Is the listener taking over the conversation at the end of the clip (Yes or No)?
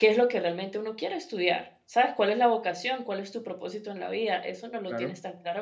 No